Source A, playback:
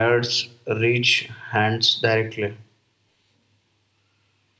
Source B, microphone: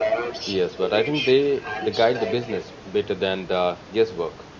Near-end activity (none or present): present